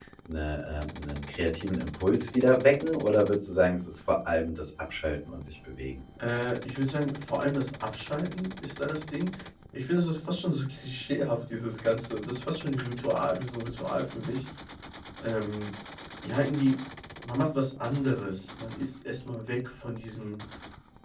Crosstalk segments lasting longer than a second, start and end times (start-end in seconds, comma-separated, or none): none